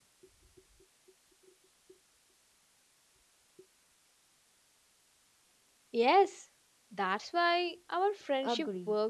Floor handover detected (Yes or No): Yes